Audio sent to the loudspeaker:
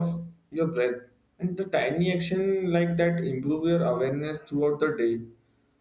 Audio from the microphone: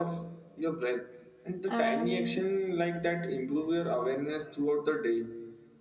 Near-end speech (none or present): present